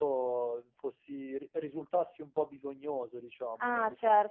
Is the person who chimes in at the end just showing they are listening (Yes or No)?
No